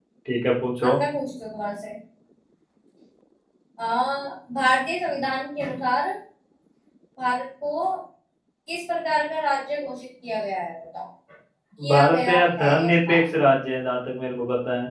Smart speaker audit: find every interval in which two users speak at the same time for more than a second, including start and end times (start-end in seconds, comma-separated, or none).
11.9-13.2